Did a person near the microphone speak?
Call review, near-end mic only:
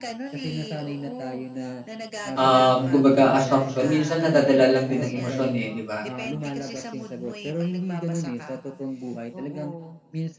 Yes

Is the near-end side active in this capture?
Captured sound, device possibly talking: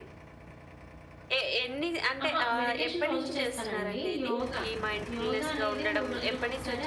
Yes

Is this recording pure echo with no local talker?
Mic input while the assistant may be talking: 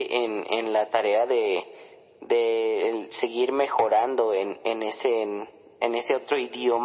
Yes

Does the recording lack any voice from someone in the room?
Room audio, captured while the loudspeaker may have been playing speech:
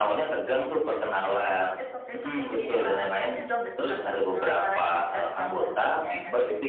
No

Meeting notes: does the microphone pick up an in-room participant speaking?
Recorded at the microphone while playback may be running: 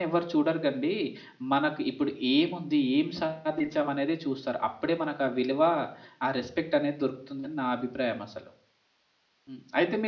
Yes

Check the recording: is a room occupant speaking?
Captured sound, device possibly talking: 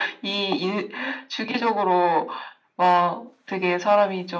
No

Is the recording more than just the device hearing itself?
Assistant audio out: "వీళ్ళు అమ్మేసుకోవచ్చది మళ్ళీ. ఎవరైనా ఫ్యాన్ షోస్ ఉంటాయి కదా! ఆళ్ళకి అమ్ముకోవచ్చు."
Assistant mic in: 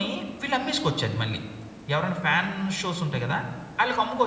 No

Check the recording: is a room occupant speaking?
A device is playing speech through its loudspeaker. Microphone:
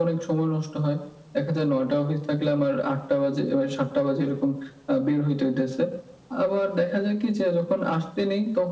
No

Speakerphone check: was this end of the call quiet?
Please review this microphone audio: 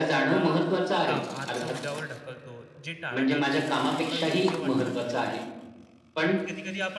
No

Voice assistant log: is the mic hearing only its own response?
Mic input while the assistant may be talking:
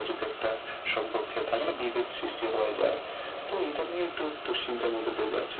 No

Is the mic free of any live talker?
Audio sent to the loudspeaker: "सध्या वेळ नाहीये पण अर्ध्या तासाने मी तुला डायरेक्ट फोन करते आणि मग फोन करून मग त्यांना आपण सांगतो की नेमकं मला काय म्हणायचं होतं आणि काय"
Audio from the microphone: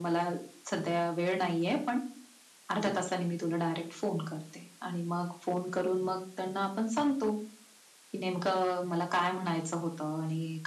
Yes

